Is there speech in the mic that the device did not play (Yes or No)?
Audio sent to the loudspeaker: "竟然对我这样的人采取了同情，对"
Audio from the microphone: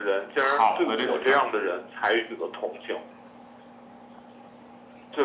Yes